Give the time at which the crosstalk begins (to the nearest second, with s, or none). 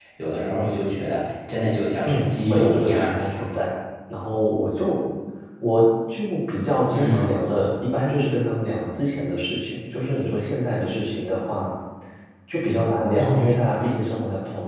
2 s